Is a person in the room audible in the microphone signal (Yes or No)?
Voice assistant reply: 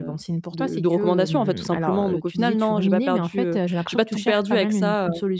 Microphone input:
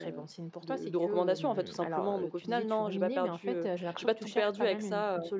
No